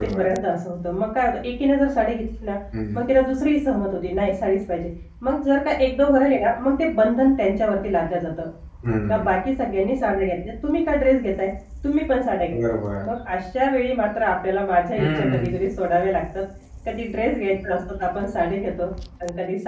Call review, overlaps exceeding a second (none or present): none